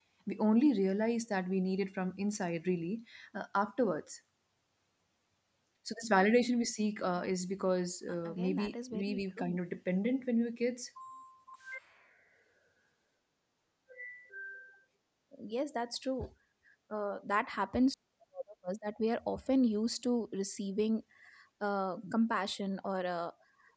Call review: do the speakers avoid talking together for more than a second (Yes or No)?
No